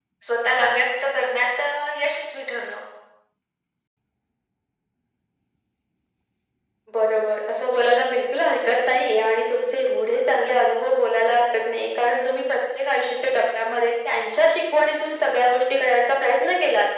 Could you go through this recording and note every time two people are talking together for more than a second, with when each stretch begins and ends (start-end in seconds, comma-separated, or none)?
none